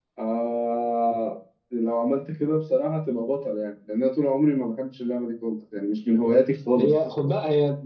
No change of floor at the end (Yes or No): No